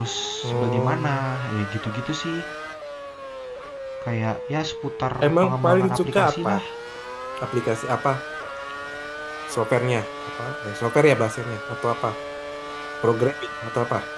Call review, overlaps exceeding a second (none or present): present